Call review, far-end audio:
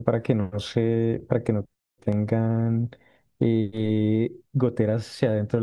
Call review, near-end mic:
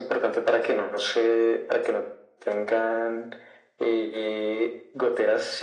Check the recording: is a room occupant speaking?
No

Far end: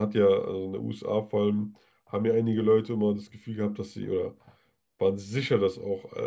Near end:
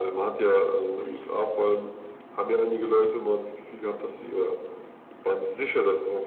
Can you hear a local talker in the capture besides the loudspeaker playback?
No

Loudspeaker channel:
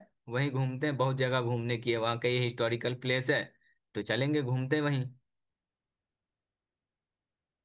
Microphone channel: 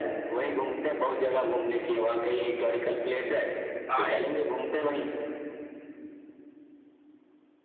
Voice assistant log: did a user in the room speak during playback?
Yes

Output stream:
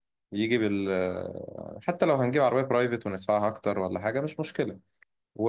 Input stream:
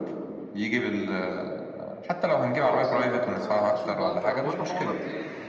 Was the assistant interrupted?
Yes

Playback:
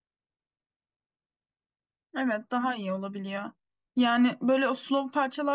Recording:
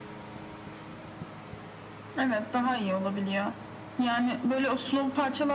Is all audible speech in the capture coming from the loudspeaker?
Yes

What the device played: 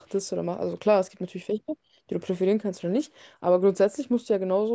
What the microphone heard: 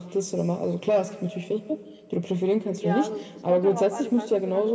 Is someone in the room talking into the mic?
Yes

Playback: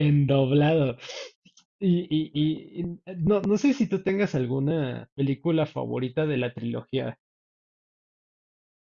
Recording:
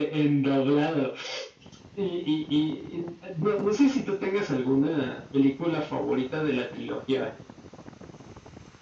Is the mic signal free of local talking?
Yes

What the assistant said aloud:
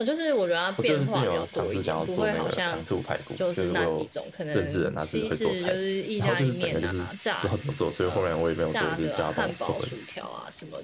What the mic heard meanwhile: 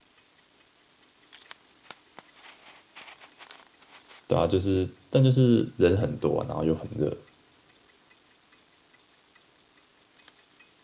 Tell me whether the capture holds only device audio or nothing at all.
No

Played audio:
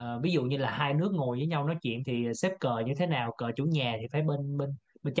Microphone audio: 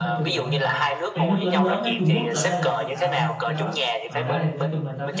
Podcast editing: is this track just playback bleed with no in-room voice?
No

